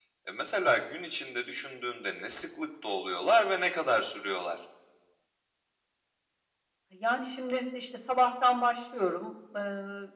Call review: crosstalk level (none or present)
none